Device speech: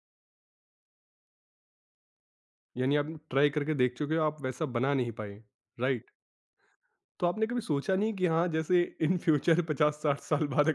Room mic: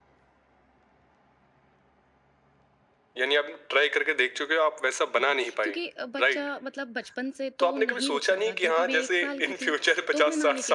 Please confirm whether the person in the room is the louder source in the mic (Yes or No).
No